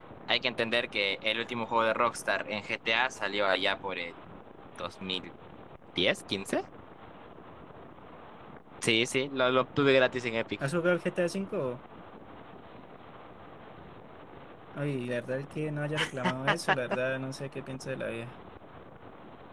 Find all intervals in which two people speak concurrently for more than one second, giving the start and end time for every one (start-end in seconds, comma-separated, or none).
none